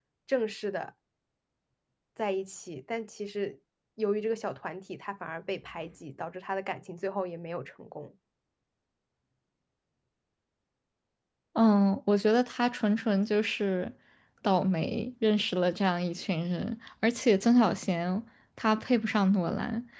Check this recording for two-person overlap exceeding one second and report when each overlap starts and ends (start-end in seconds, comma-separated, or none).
none